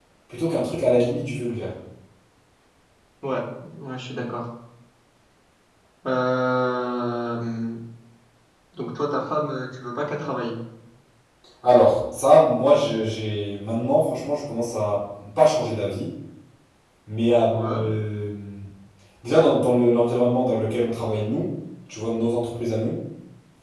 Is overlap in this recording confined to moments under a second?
Yes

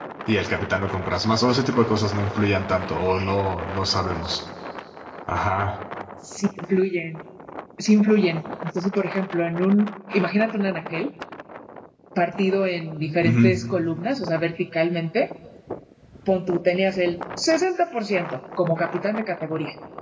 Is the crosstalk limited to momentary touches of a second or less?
Yes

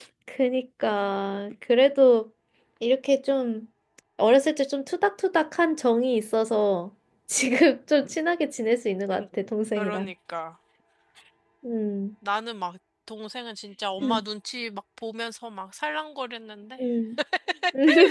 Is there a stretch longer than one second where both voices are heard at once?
No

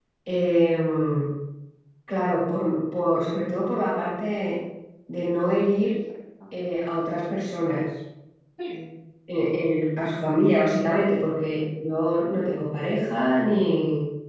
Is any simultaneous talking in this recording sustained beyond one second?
No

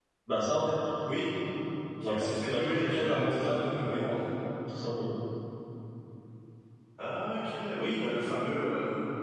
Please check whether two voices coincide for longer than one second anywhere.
Yes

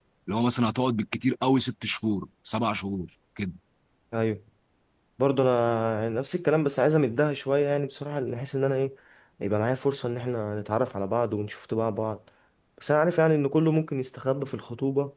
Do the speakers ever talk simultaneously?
No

